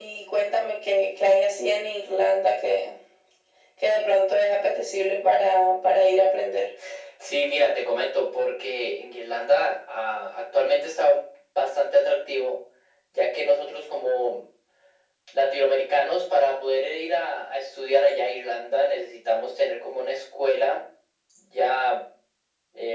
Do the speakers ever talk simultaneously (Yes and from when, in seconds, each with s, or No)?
No